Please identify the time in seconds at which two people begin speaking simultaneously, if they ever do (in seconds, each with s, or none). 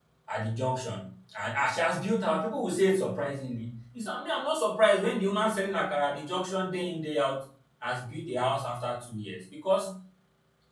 none